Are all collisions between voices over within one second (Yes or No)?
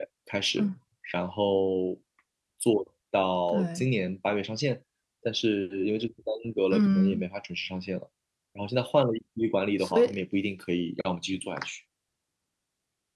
Yes